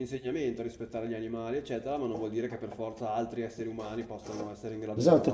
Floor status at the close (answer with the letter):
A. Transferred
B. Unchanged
A